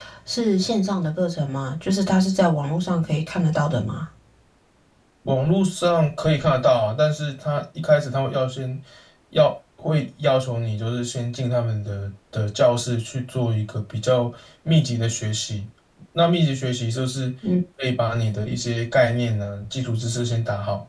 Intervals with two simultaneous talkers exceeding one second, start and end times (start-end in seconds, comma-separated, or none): none